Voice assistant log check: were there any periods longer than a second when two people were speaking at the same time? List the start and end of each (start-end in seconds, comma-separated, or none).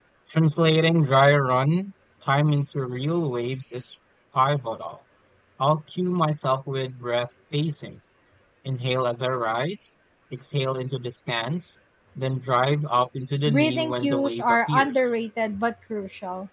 13.5-15.1